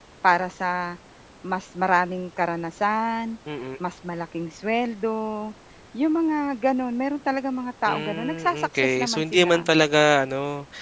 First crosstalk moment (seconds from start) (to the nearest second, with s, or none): 8 s